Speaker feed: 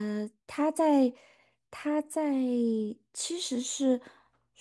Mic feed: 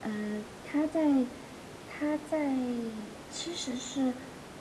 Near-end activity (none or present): none